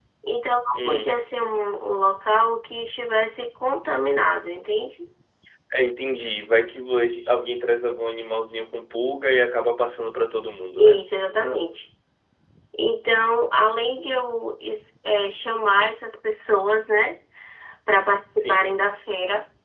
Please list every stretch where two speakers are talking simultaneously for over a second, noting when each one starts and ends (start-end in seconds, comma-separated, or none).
none